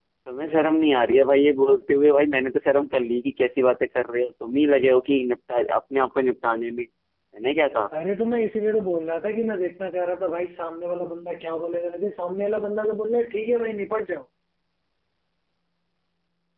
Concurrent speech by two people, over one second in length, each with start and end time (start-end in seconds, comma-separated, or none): none